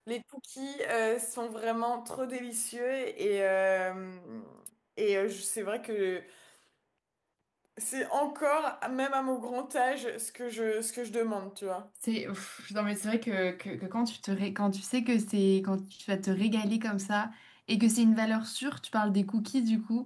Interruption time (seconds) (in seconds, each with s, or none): none